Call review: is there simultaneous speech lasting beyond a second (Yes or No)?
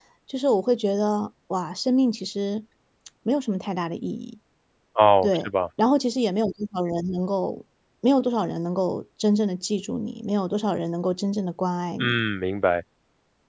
No